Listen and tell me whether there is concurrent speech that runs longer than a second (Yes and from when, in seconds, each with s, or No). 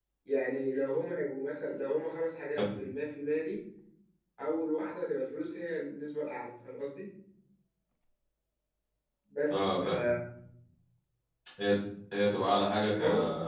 No